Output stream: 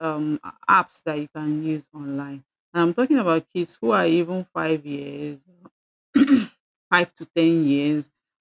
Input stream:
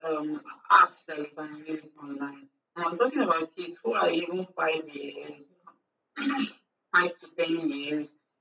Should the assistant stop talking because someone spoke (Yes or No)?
No